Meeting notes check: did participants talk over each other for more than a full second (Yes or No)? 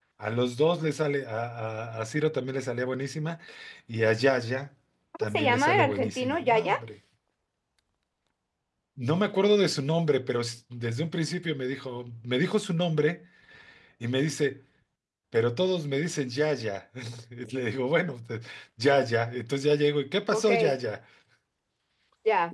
Yes